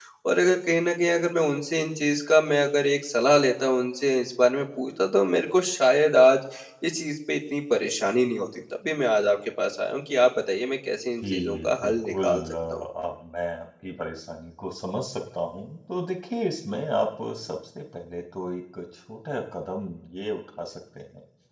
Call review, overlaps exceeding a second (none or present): present